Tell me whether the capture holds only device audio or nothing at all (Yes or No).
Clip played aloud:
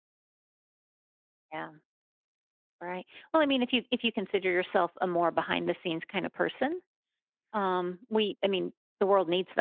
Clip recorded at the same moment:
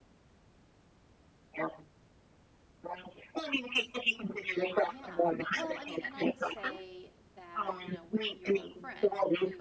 No